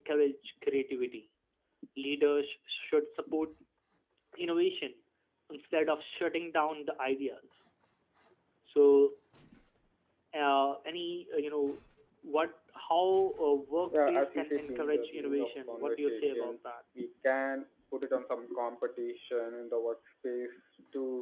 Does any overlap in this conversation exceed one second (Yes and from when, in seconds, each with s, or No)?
Yes, from 13.9 s